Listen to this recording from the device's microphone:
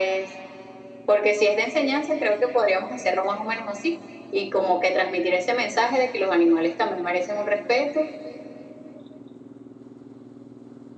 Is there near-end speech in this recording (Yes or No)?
No